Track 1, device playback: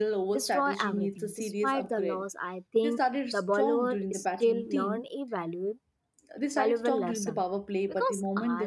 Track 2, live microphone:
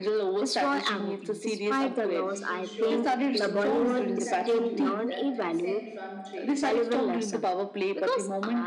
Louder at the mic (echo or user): echo